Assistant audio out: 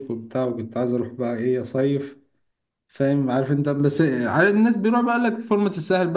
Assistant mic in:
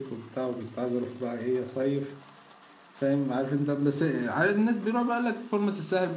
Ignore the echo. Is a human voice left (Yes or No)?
No